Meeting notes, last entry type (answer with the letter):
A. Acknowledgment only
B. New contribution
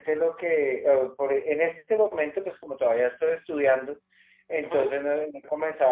A